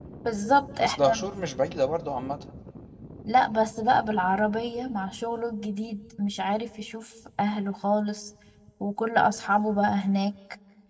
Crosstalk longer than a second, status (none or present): none